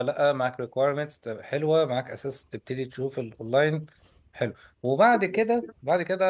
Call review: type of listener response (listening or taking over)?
listening